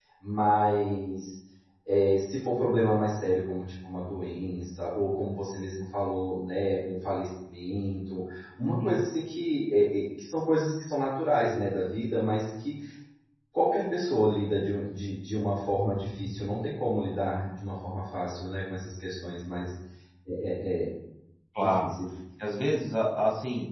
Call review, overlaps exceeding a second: none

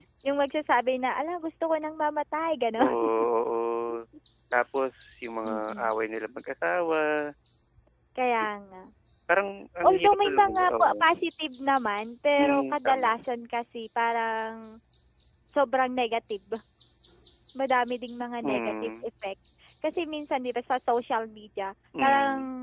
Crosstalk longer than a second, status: present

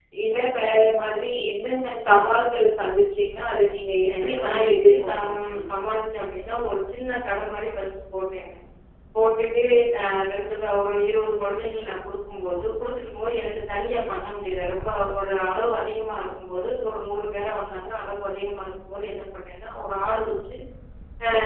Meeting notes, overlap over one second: present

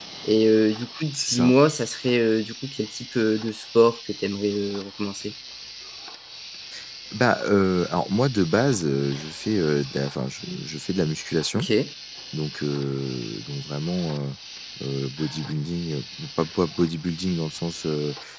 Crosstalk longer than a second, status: none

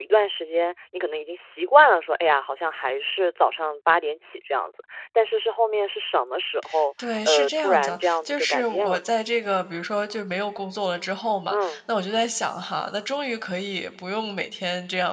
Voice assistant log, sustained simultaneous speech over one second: present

